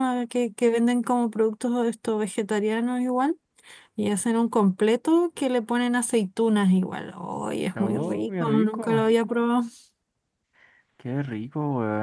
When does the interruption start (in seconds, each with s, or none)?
7.8 s